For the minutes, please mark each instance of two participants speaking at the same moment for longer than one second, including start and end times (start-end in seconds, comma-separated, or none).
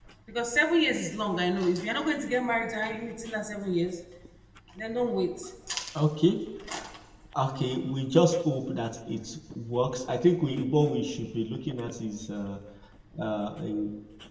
none